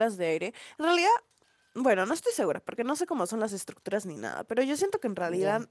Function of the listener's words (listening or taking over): listening